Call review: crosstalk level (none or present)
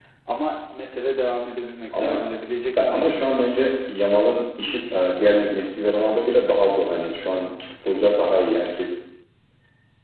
present